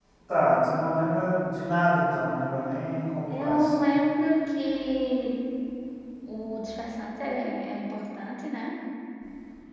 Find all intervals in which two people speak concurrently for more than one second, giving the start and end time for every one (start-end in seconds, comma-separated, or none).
none